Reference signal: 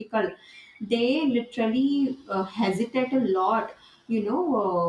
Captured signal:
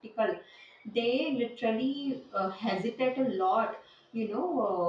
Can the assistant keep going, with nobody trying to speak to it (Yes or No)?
Yes